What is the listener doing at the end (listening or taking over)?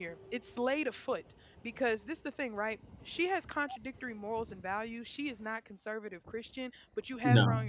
listening